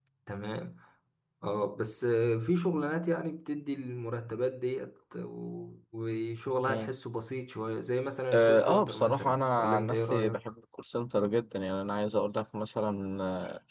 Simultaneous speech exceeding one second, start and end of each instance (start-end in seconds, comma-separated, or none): 8.3-10.4